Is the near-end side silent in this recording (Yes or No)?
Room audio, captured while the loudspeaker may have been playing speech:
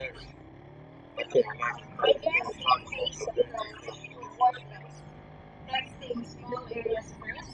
Yes